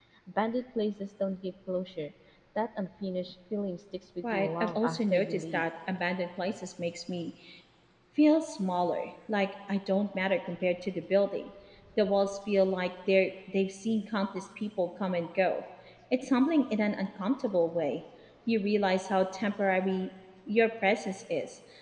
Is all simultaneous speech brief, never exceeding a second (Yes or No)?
No